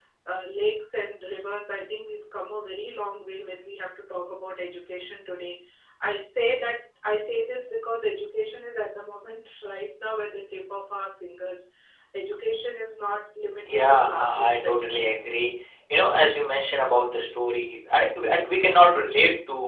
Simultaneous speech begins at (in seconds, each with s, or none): 13.7 s